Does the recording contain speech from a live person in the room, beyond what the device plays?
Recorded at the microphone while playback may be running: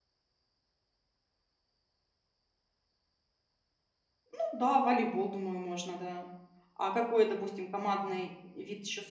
Yes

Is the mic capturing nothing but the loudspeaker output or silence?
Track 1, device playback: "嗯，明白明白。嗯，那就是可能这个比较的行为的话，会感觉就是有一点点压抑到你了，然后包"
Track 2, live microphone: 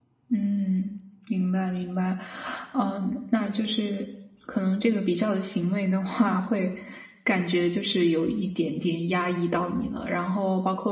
Yes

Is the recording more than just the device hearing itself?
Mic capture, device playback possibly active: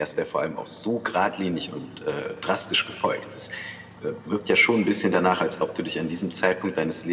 No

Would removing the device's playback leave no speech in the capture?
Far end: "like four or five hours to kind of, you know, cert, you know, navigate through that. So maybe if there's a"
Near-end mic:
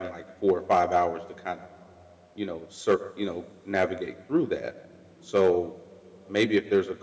Yes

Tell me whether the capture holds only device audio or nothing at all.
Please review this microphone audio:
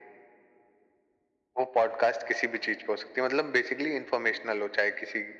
Yes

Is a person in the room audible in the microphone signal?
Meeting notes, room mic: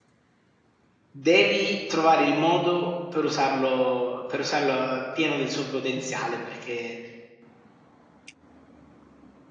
Yes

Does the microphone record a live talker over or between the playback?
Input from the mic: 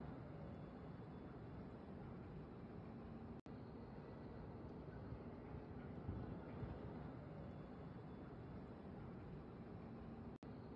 No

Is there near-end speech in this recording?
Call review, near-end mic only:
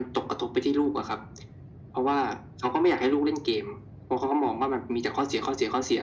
No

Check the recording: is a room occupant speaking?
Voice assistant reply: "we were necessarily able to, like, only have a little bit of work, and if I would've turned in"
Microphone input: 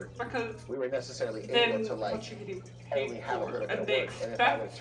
Yes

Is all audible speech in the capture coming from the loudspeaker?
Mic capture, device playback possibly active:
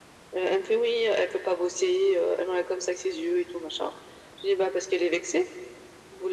Yes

